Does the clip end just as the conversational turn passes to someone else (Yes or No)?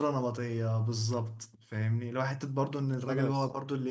No